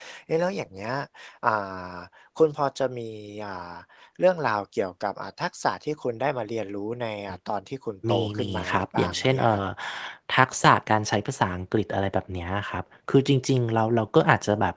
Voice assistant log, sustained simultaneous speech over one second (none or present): present